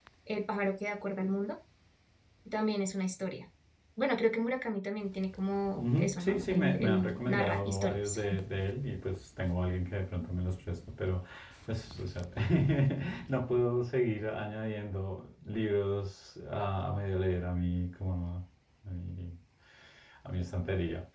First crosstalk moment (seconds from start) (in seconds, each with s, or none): 5.8 s